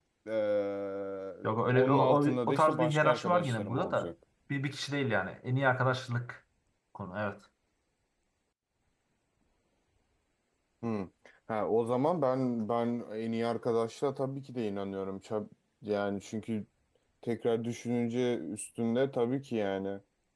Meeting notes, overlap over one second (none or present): present